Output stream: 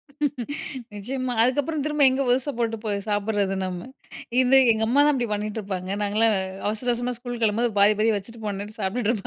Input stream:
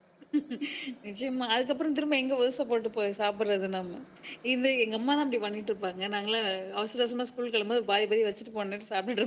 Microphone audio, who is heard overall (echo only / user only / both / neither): echo only